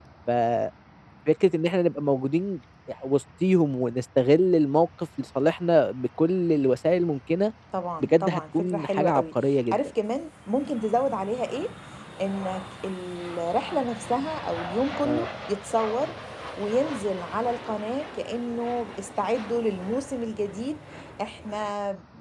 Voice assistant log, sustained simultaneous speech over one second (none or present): present